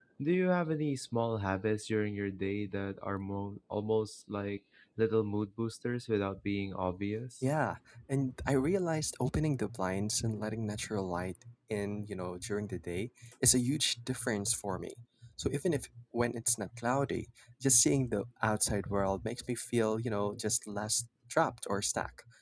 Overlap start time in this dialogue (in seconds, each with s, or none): none